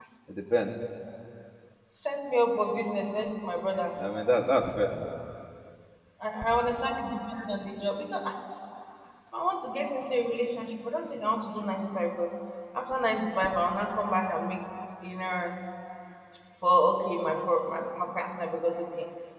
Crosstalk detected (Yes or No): No